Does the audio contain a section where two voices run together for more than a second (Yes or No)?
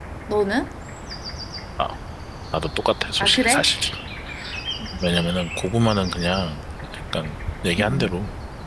No